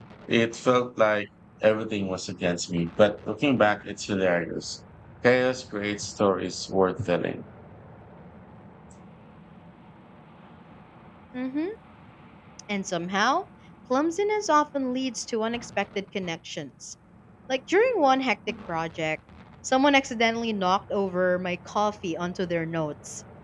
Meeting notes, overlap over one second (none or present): none